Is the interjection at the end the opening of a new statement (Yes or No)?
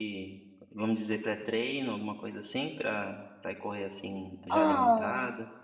Yes